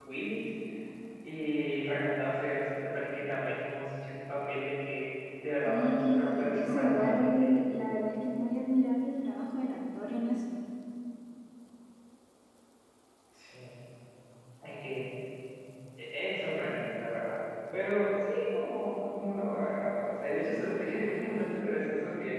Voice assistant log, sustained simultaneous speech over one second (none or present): present